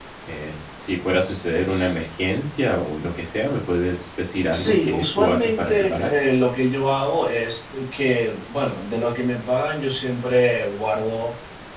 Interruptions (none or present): present